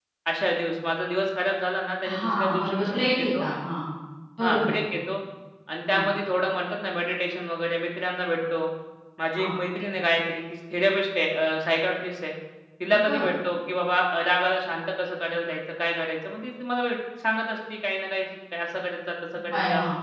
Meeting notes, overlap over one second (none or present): present